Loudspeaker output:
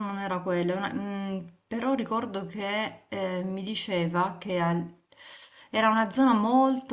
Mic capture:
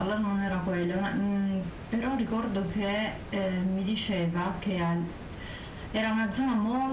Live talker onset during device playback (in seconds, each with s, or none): none